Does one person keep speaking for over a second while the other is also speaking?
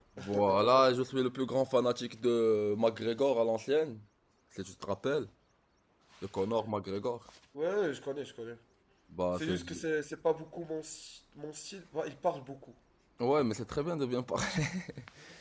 No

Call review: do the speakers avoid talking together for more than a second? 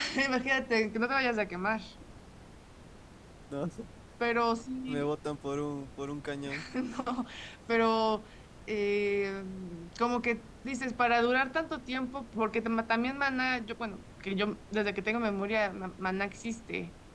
Yes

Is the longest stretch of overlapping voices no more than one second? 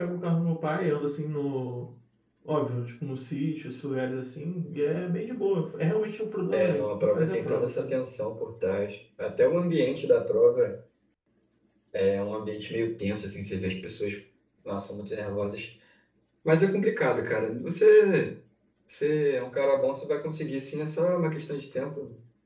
No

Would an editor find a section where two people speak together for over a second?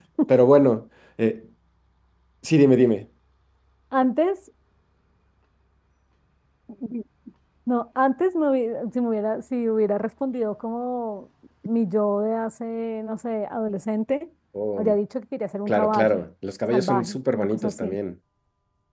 Yes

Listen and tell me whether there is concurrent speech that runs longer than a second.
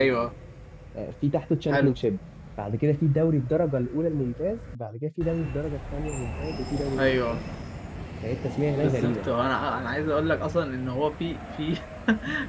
No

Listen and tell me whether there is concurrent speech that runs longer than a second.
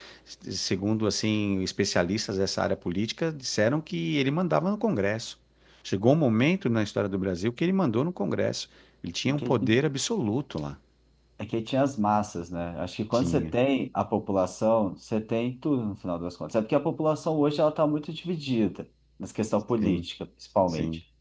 No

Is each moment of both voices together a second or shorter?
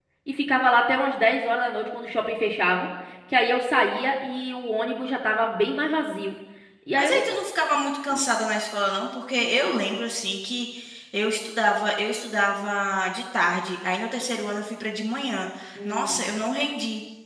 Yes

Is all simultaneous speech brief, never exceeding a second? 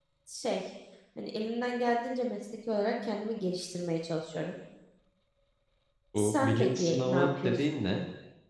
No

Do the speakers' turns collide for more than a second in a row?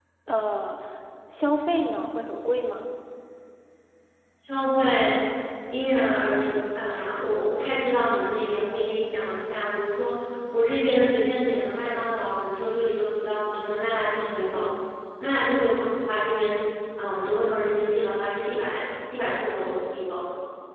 No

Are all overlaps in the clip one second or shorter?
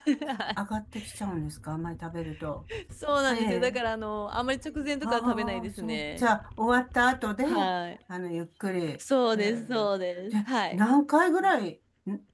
No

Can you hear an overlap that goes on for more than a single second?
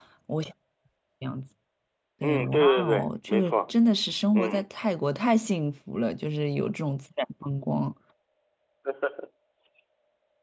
Yes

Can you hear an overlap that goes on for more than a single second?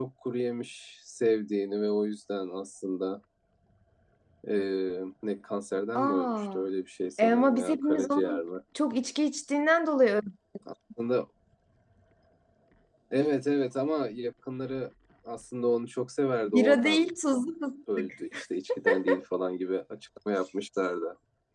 Yes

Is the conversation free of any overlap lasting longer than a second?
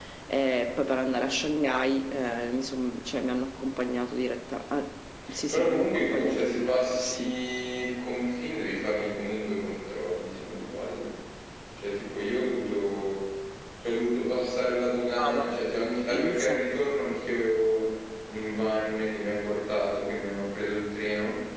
No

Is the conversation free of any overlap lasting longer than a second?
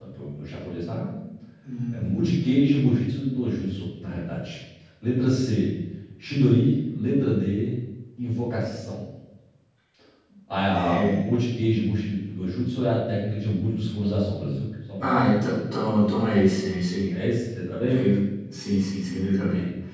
Yes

